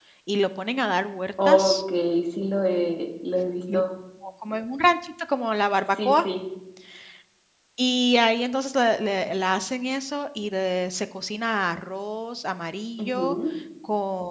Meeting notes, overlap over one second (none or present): none